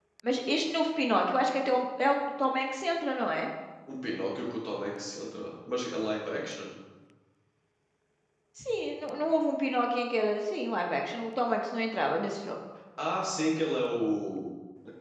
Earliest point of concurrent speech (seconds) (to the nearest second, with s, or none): none